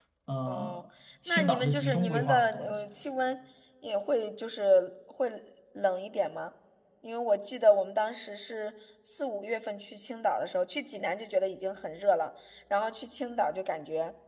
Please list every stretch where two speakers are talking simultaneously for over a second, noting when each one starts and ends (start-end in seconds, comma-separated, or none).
1.3-2.7